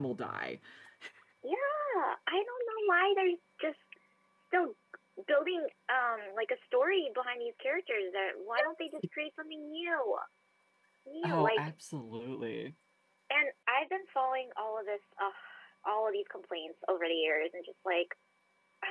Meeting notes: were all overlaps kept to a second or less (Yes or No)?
Yes